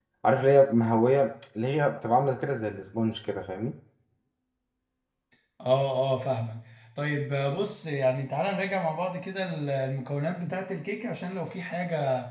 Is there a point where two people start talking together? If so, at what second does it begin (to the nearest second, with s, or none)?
none